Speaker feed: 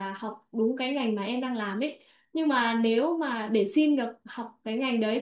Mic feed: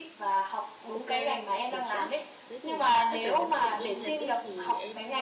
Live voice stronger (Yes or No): No